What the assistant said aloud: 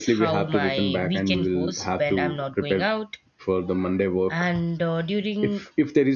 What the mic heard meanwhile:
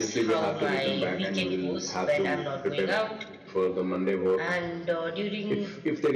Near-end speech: none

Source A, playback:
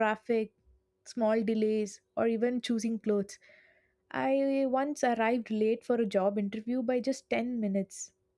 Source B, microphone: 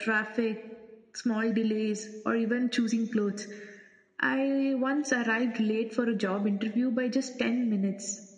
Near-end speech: none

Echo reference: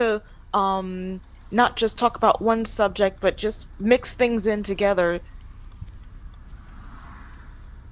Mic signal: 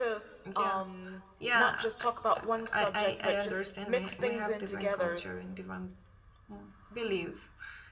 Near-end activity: present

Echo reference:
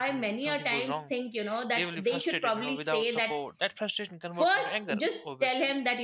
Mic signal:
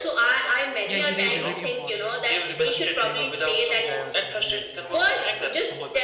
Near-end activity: present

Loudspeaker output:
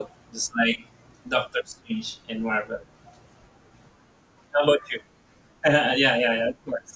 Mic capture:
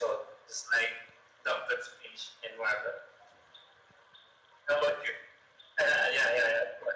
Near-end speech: none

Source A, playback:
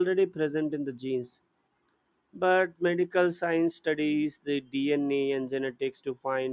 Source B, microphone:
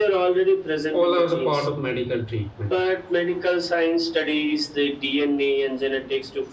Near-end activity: present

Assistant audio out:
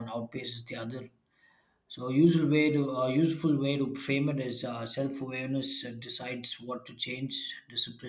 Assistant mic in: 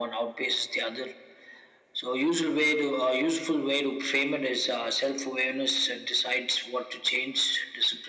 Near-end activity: none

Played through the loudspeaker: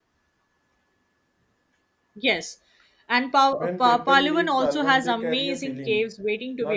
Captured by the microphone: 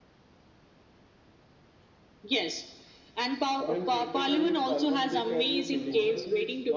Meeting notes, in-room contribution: present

